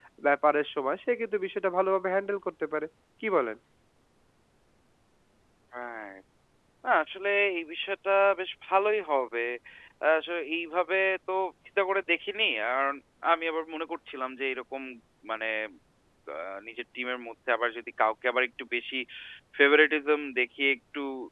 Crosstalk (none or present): none